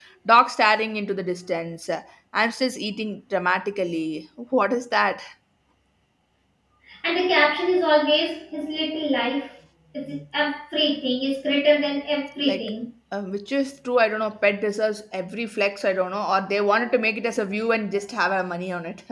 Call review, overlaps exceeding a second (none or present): none